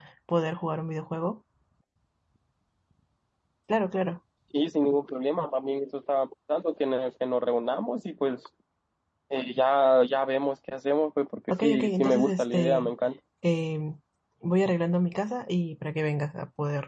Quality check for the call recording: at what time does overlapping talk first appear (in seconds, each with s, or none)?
11.5 s